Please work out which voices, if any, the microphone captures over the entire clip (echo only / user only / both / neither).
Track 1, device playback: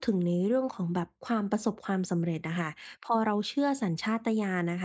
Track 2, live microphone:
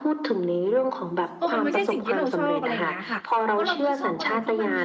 both